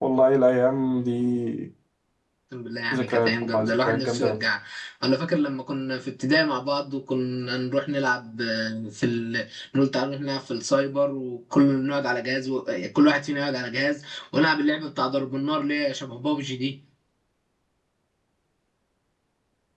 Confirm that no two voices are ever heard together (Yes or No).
No